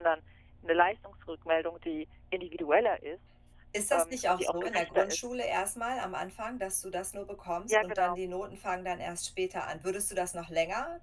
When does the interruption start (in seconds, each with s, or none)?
3.9 s